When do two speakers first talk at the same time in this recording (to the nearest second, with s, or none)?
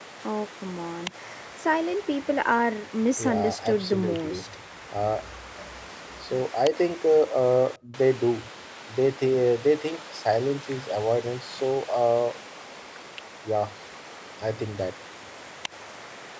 3 s